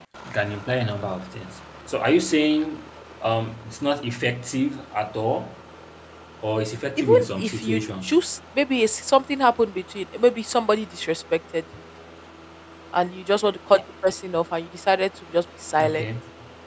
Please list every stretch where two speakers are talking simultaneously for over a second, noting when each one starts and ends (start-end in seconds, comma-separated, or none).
7.0-8.2